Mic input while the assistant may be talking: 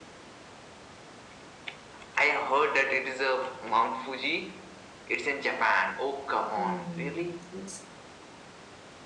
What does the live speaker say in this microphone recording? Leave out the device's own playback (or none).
Hmm. It's,